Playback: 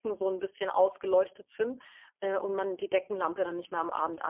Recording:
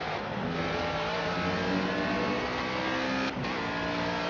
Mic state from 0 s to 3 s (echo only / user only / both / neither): neither